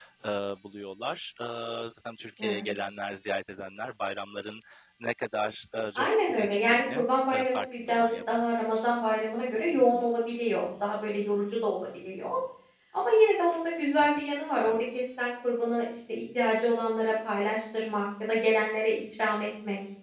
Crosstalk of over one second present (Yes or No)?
Yes